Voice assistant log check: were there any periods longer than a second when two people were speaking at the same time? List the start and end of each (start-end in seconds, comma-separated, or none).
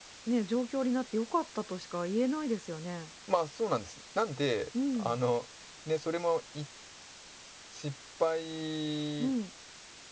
none